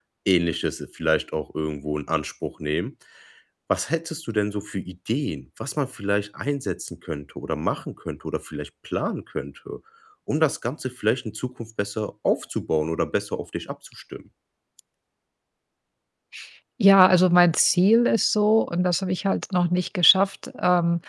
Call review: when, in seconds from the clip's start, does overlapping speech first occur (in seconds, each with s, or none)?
none